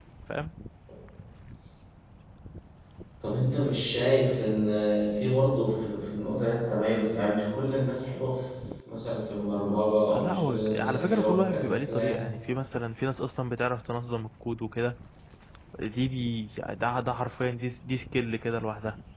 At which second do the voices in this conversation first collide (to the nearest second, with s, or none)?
10 s